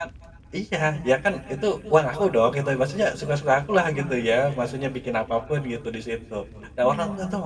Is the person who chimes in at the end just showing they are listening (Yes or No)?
Yes